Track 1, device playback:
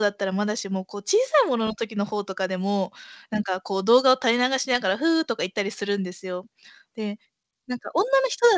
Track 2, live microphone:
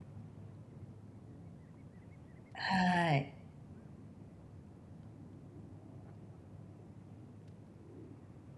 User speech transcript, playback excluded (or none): はい。